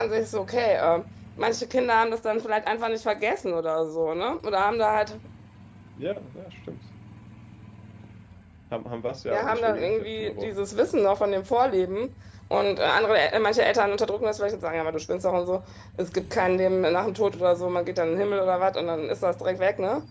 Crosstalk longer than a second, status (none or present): present